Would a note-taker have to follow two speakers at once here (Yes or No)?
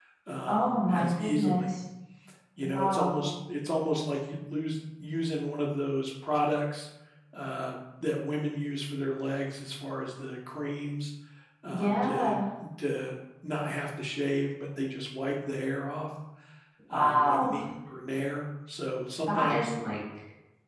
Yes